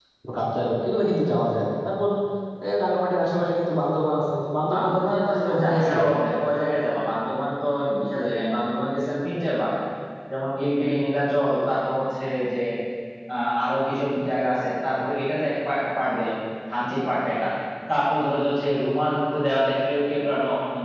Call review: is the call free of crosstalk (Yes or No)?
No